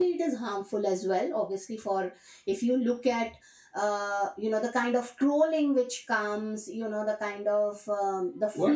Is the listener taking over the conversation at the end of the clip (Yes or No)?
Yes